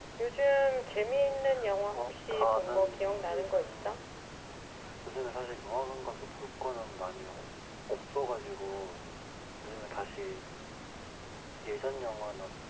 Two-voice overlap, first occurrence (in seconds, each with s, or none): 1.9 s